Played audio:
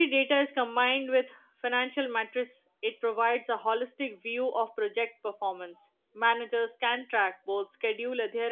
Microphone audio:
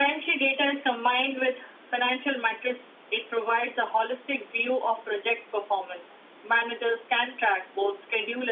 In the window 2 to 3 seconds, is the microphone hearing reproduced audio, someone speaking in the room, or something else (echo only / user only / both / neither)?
echo only